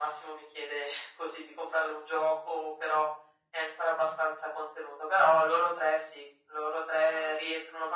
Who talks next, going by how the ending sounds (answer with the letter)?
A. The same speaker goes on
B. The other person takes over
A